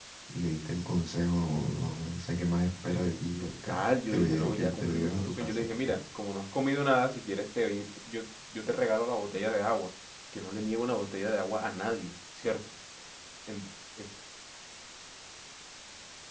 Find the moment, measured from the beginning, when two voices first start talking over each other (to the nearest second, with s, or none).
3 s